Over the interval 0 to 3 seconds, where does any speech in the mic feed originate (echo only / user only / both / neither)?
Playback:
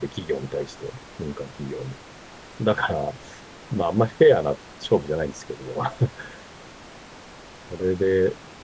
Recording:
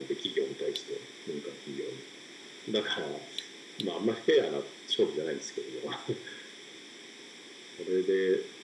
echo only